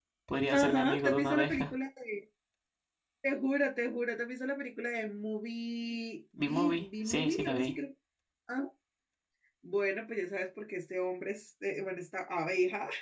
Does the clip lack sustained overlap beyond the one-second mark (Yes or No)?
No